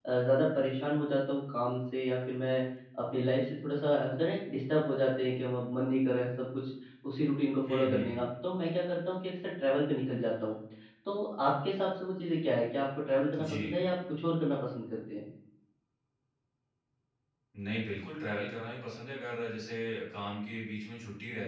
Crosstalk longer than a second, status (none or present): none